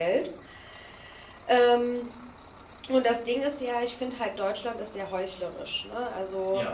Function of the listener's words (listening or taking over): listening